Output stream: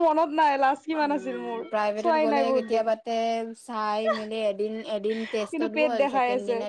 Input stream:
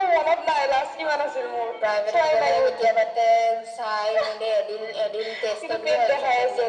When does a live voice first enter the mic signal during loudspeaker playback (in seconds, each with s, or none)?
none